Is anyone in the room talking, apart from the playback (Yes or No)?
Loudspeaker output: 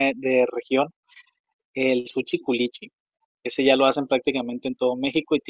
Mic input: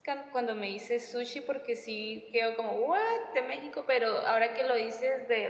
Yes